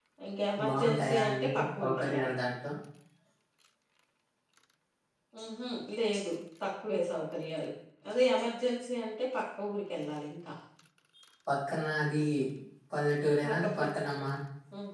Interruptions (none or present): present